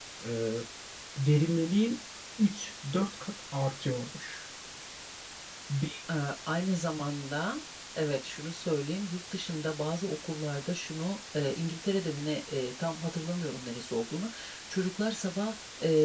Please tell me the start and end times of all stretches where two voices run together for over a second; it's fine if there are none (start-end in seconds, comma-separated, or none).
none